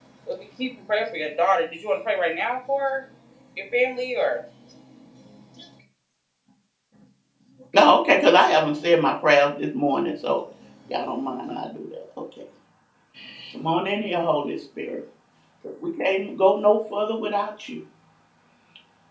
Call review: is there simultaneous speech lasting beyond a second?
No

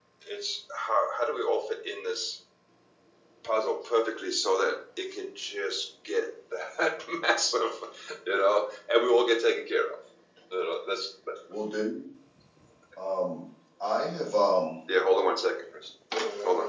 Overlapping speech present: No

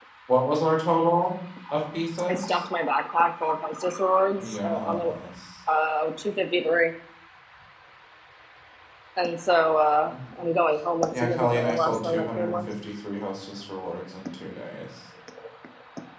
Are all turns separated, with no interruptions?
No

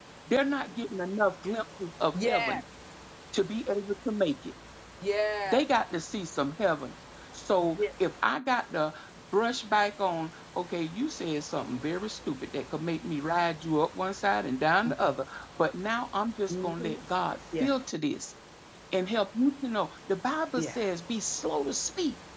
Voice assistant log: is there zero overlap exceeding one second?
Yes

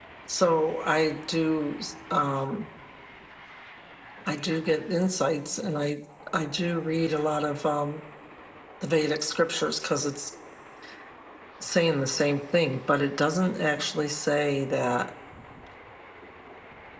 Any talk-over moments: No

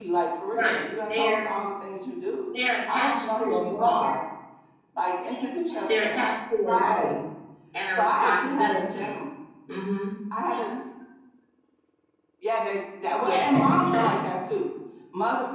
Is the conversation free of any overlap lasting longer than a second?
No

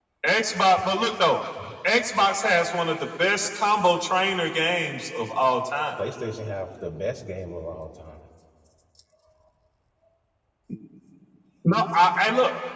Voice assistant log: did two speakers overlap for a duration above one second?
No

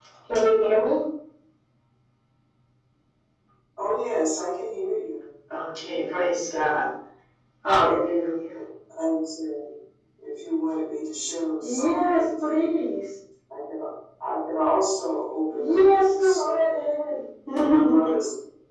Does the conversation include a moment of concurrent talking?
Yes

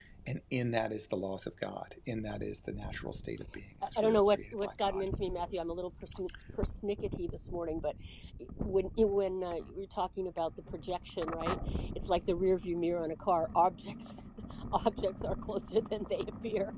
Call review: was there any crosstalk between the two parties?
Yes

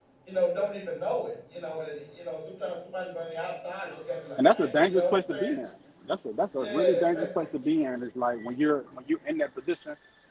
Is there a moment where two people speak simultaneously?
Yes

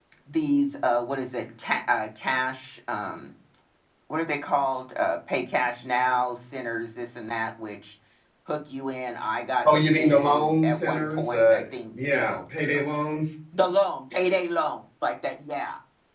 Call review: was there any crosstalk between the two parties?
Yes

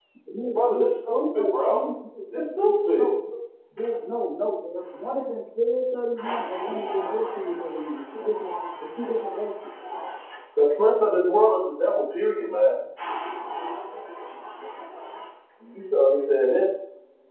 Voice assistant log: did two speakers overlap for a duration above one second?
Yes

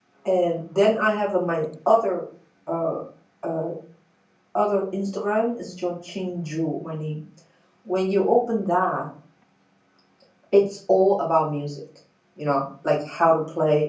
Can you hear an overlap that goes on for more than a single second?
No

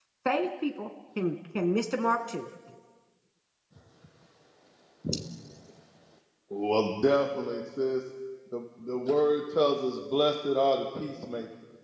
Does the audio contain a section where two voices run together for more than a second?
No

